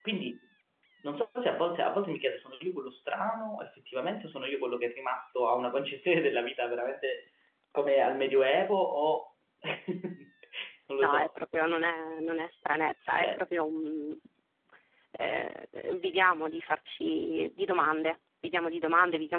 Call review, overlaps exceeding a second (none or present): none